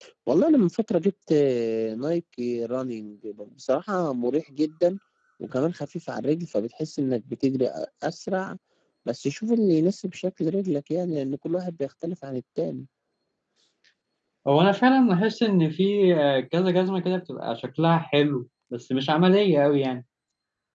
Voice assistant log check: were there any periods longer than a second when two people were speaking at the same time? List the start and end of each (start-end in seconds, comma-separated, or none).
none